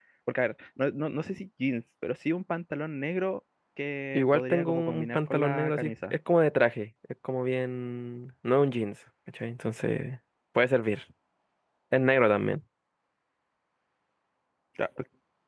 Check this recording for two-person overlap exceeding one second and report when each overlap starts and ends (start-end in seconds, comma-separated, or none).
4.1-5.9